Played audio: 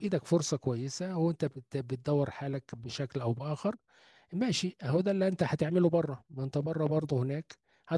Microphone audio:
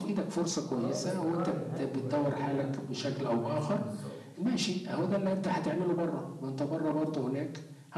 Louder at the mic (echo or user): echo